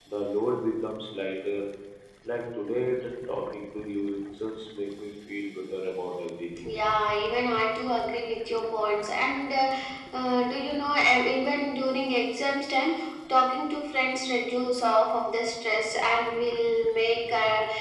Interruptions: none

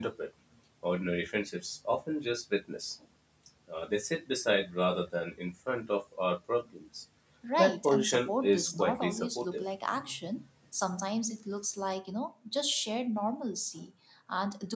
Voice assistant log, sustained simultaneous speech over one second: present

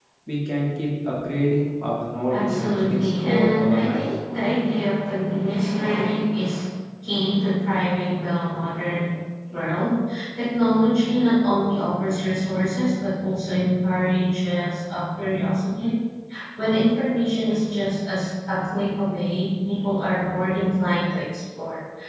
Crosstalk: present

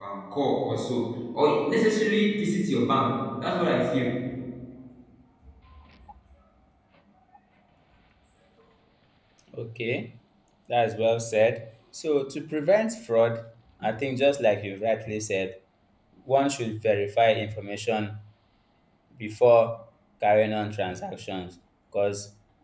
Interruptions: none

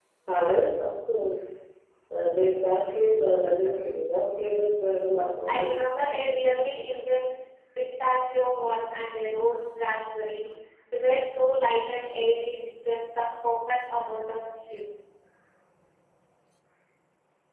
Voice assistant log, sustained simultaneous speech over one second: none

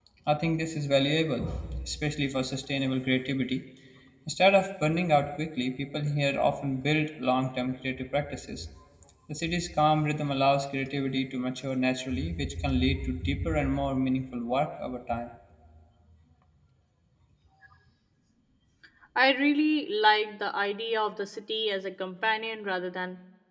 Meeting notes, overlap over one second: none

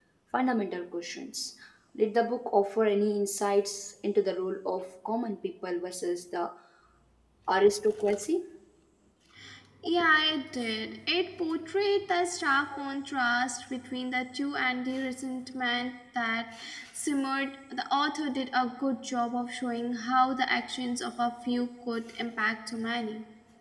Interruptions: none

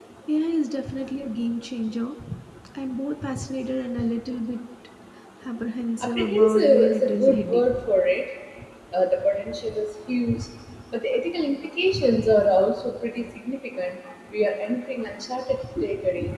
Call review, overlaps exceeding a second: present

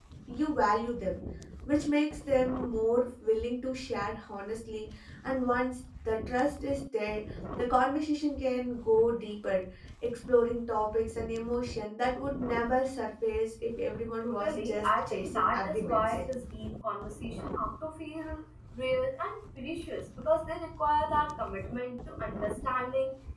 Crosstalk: present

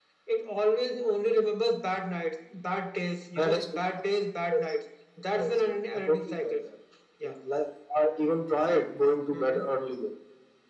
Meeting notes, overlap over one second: present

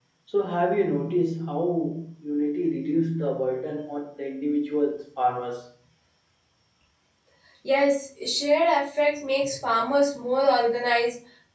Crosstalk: none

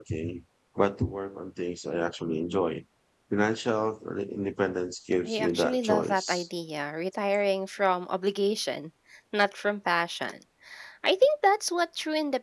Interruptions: present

